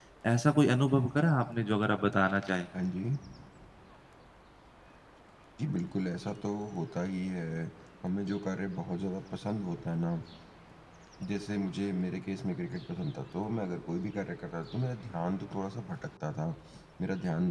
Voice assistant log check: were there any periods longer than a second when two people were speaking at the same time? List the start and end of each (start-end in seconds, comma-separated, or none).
none